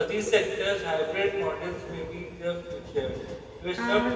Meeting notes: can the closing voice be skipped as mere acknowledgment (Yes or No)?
No